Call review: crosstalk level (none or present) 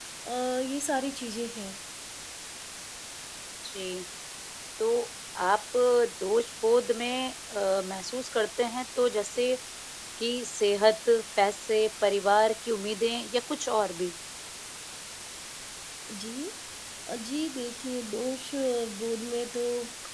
none